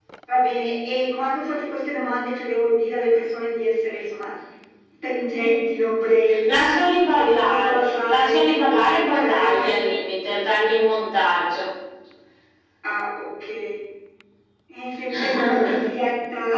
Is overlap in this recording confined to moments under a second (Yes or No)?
No